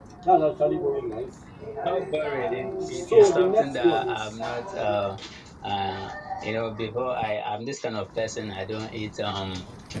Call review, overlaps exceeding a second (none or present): present